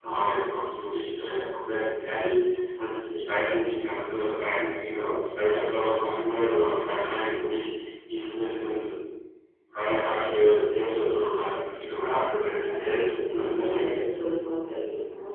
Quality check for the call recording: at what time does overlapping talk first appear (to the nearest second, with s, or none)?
12 s